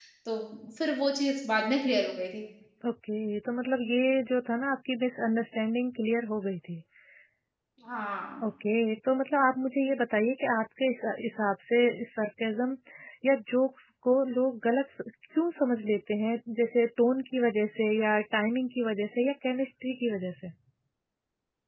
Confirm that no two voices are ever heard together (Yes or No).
Yes